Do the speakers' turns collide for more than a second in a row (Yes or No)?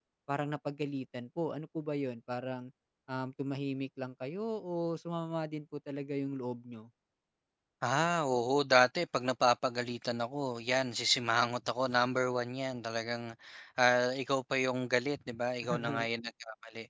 No